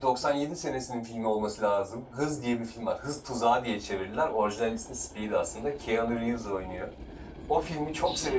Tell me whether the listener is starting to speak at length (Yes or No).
No